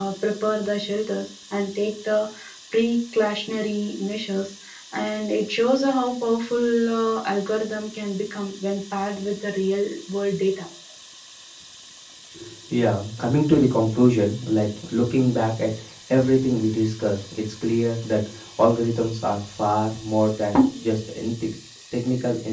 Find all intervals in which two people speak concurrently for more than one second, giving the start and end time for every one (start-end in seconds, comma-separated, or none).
none